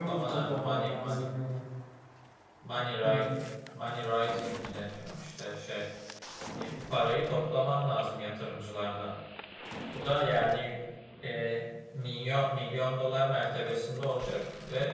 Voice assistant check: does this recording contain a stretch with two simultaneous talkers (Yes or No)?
Yes